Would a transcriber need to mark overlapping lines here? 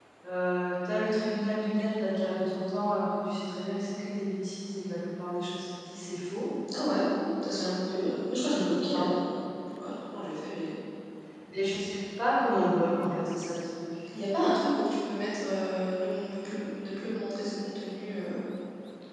No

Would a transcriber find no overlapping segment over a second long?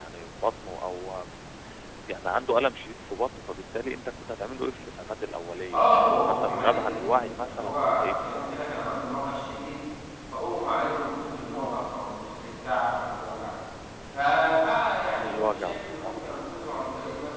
No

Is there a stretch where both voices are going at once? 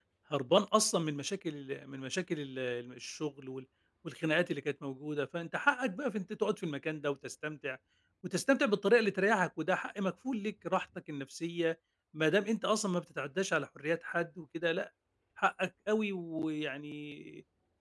No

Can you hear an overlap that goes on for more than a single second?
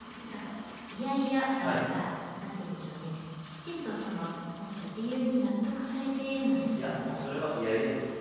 No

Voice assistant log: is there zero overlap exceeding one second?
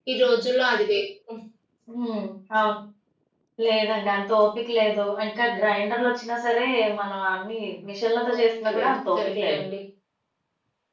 No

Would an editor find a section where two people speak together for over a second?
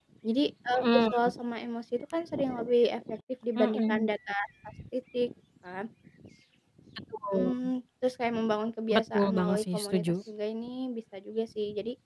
Yes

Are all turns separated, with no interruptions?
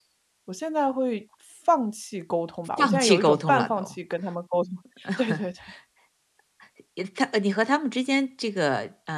No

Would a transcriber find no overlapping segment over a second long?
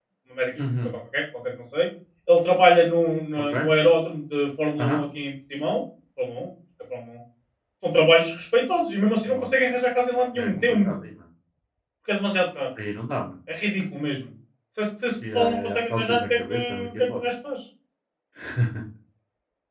No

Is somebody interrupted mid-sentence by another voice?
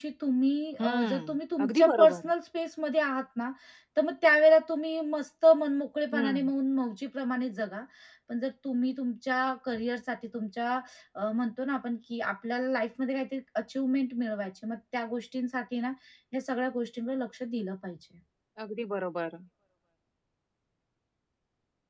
Yes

